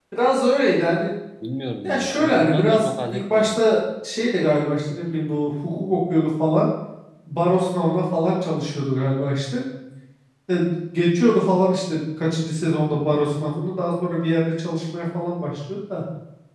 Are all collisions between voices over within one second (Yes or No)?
No